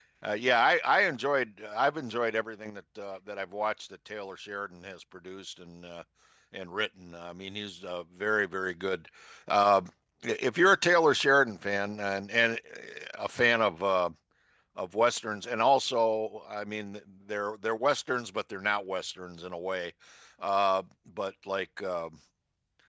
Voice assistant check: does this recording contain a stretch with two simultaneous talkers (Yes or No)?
No